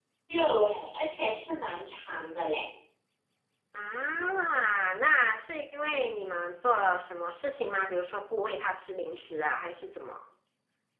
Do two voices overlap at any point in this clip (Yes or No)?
No